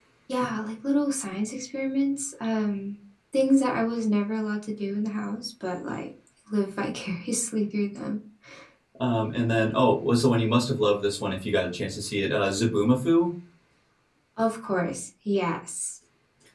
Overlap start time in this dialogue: none

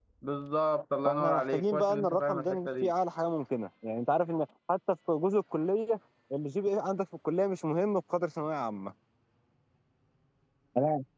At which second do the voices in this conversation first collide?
1 s

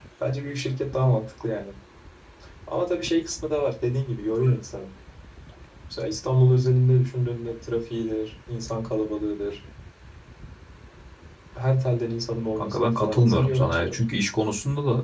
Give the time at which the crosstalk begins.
13 s

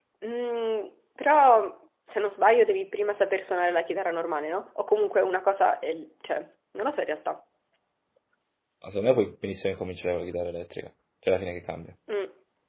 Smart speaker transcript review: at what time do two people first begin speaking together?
none

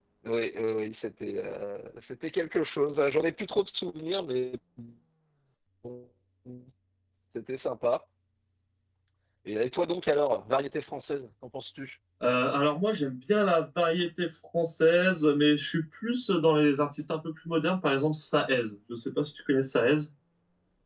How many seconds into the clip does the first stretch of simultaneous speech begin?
none

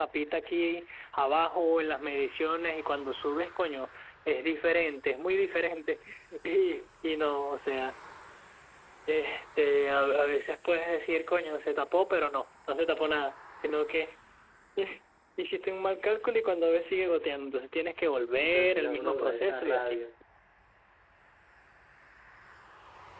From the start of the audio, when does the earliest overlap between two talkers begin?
18 s

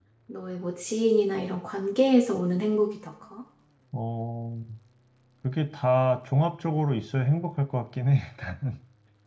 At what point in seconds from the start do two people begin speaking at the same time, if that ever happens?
none

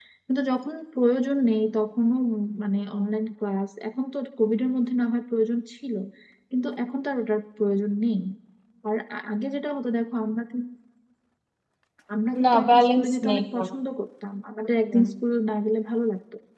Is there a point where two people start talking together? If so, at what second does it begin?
12 s

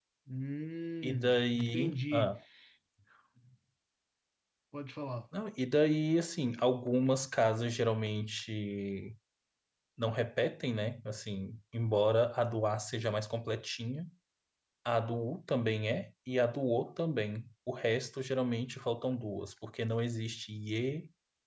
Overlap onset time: 1 s

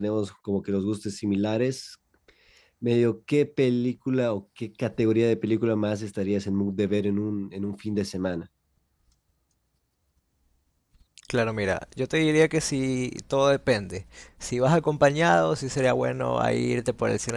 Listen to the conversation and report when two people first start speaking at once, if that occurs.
none

